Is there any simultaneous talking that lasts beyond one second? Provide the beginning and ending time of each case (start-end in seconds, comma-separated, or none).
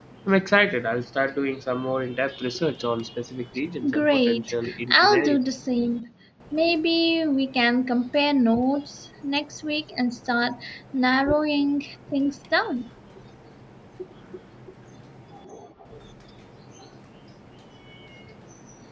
3.9-5.4